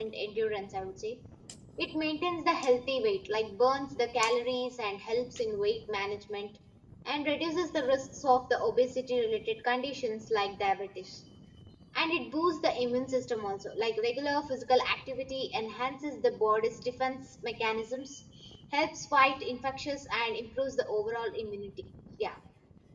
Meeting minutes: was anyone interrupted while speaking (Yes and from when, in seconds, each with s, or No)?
No